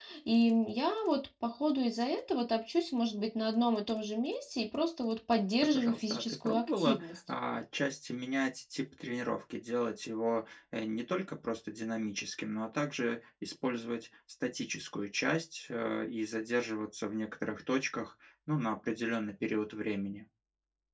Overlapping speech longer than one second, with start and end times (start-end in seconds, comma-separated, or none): 5.7-7.1